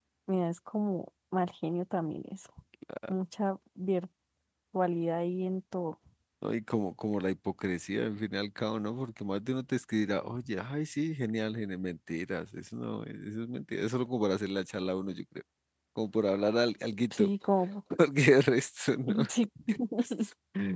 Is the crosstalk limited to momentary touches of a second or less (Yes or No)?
Yes